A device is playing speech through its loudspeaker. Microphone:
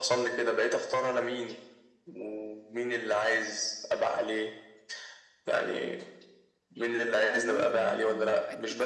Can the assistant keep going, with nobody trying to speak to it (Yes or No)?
No